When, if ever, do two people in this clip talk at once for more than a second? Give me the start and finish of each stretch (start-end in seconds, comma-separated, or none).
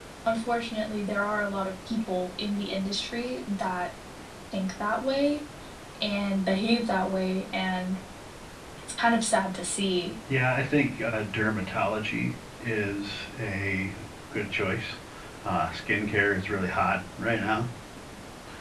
none